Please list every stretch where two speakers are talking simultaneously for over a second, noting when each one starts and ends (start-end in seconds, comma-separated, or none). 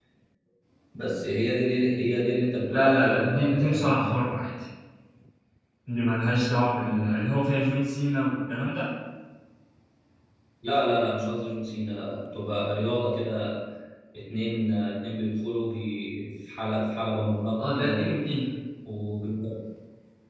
2.7-4.1